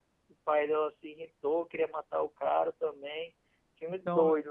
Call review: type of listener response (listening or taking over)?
taking over